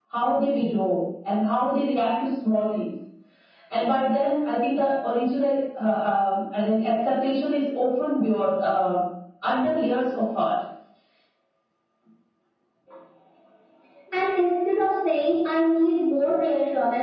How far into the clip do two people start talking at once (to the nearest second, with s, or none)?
none